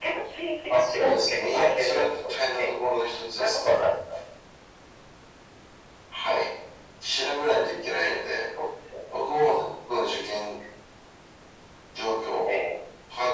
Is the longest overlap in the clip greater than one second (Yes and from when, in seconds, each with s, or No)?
Yes, from 0.7 s